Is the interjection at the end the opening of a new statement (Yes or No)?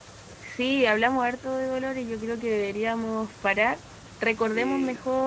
No